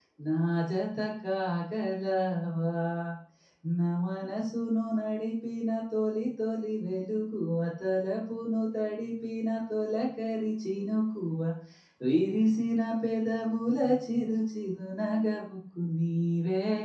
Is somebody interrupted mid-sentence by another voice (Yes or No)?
No